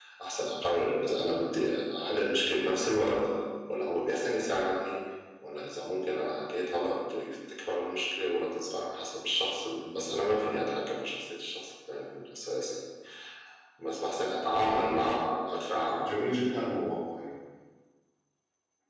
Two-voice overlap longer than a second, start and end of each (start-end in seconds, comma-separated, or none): none